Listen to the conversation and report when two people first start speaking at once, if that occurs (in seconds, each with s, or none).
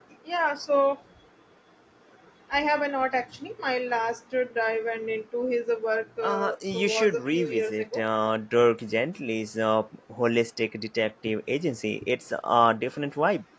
6.2 s